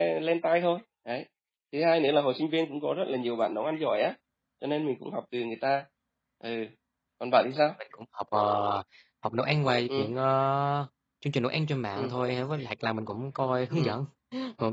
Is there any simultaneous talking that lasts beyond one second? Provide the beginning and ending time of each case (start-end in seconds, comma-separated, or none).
none